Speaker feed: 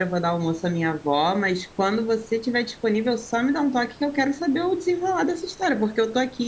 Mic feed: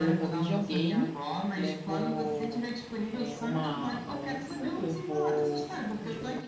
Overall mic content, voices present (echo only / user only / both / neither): both